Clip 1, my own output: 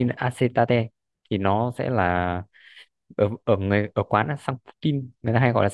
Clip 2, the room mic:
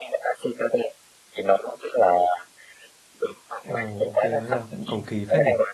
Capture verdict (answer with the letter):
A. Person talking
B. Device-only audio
A